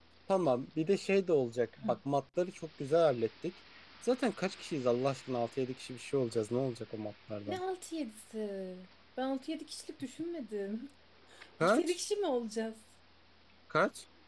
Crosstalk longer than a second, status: none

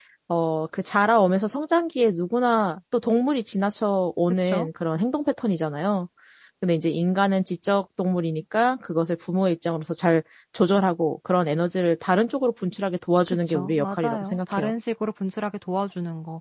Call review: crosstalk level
present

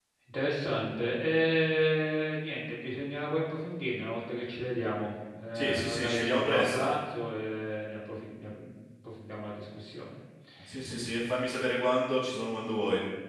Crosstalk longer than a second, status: present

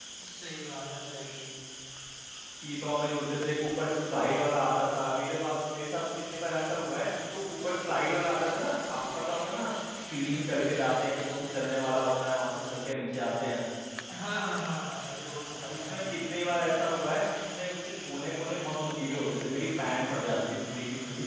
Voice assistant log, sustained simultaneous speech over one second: none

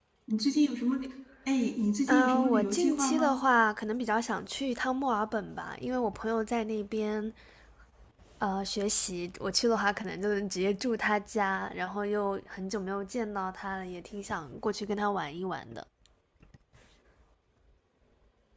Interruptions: present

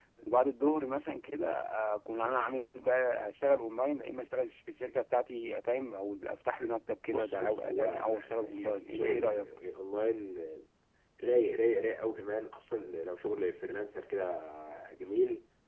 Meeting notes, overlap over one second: present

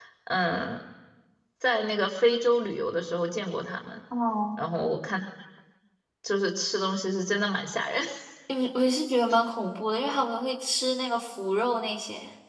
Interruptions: none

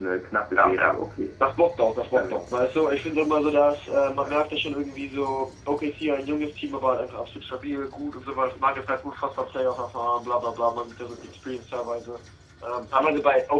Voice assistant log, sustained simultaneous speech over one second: none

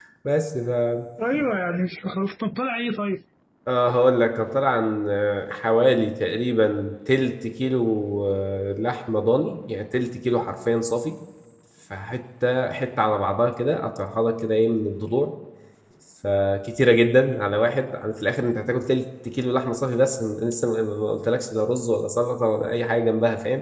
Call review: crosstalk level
none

